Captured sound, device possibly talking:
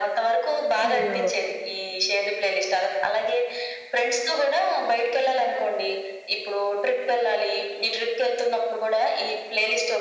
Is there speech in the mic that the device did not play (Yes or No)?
Yes